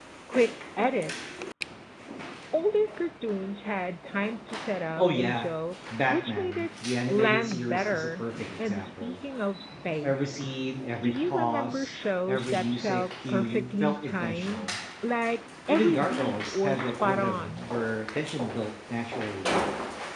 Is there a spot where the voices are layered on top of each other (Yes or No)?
Yes